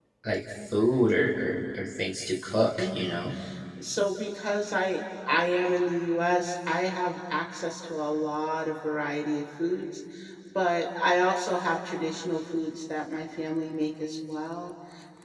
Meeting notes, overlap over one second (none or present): none